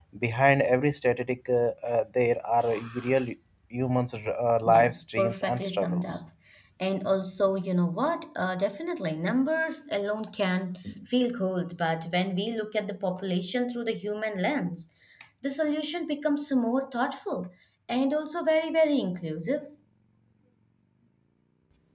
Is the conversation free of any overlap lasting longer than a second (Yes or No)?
No